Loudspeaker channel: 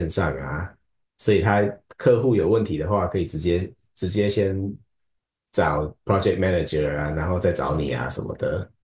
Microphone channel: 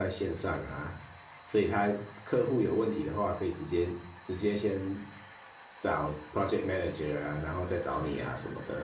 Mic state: echo only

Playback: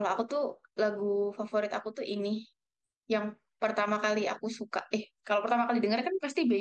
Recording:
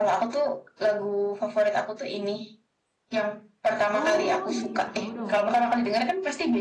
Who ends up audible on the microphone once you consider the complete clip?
both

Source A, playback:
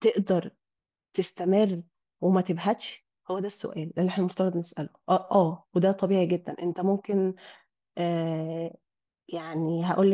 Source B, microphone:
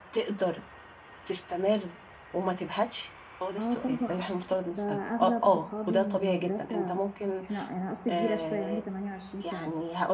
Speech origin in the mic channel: both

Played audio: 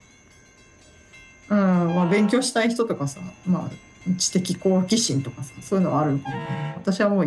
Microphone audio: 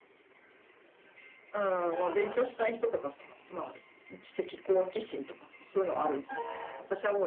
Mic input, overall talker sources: echo only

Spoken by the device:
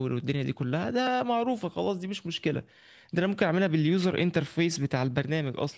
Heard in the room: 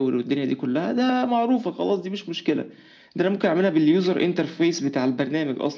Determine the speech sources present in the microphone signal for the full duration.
echo only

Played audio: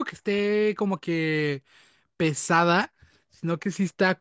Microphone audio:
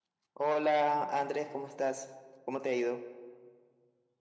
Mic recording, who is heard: user only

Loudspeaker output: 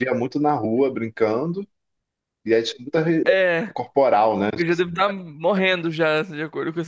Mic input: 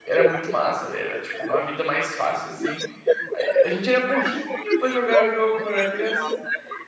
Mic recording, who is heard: both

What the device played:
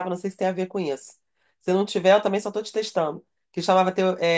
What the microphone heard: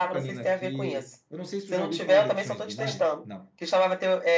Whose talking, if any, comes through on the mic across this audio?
both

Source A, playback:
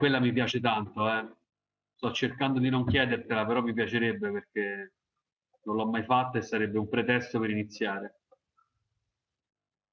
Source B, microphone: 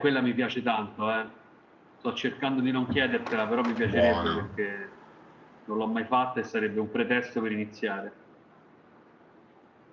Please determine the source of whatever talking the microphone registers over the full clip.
both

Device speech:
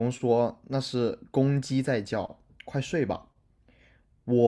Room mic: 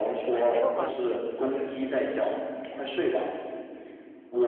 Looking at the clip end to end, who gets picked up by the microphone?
both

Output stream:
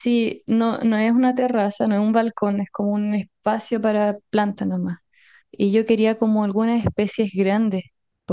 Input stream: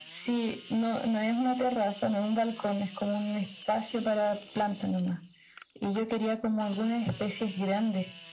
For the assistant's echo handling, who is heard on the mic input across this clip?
echo only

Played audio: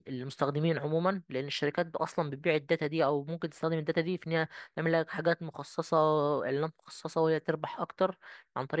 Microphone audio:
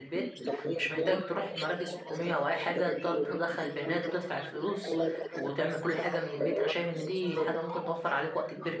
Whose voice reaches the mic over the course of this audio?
both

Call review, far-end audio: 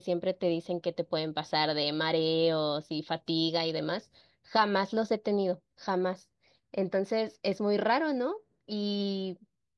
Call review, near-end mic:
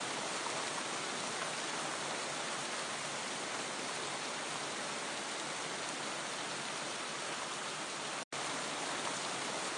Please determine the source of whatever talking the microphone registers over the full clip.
neither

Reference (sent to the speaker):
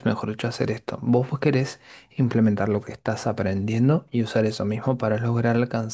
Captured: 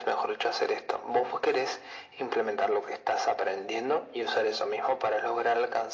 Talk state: echo only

